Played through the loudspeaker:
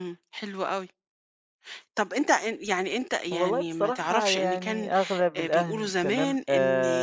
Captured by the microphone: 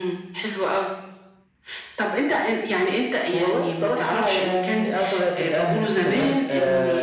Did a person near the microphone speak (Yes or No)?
No